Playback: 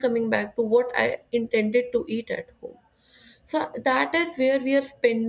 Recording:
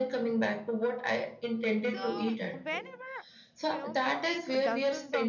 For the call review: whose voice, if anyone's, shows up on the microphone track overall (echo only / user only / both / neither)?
both